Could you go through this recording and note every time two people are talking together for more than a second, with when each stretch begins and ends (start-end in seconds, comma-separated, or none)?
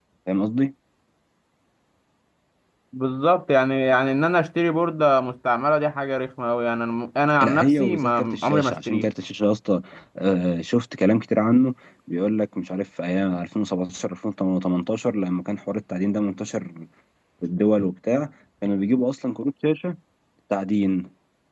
7.4-9.1